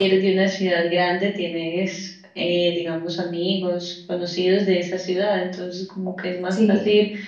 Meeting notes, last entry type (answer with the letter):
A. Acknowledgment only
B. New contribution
A